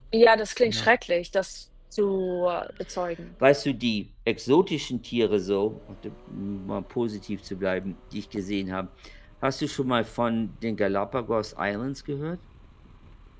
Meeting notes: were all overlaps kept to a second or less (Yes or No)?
Yes